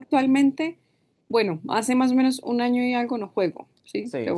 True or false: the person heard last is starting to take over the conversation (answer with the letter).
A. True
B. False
A